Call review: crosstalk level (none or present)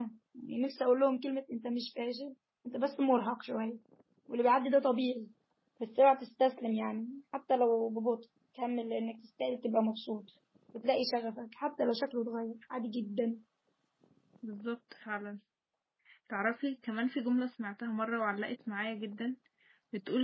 none